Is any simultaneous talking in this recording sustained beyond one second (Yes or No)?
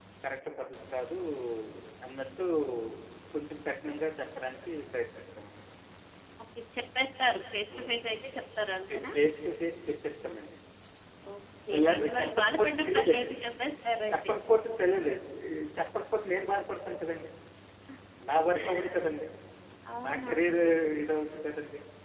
Yes